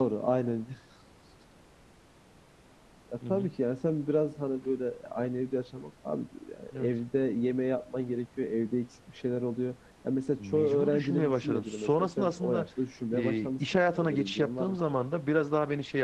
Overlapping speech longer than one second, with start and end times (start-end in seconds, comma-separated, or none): 10.4-12.7, 13.1-14.8